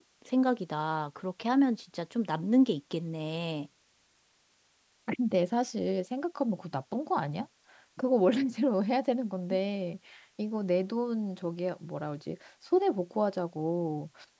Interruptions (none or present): none